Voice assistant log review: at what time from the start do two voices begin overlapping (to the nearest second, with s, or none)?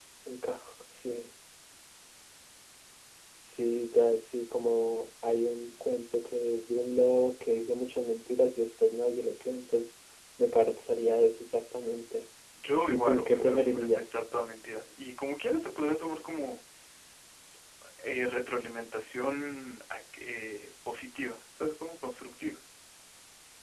13 s